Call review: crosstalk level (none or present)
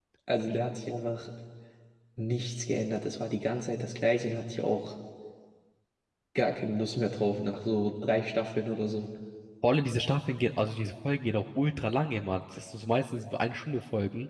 none